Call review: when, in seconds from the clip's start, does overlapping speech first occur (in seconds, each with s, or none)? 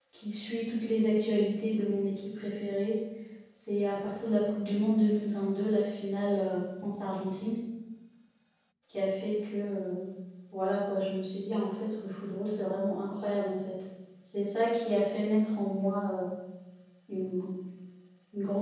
none